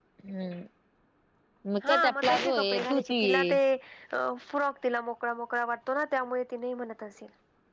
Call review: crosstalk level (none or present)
present